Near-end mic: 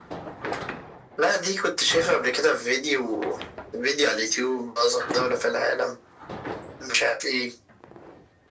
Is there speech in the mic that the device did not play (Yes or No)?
No